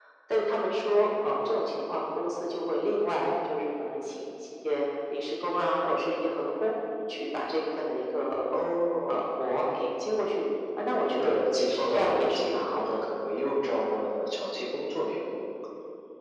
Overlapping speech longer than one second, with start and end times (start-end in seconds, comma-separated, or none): 11.2-13.0